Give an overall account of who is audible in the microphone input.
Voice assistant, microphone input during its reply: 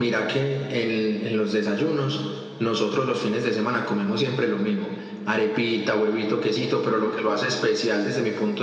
echo only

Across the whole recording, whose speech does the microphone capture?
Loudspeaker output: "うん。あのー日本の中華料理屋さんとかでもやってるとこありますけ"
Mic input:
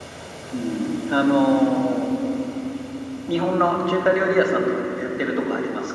echo only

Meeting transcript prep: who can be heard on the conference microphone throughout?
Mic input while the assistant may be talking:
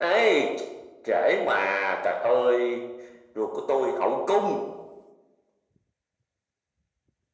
echo only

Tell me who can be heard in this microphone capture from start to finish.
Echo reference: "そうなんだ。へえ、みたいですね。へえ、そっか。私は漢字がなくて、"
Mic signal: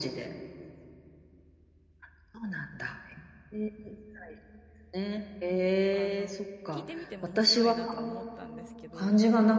both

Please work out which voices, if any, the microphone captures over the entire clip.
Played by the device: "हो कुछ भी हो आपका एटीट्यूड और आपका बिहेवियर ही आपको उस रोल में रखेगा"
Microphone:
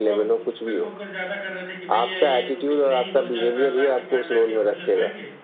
both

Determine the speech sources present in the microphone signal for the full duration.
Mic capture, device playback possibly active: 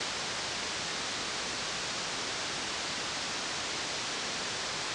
neither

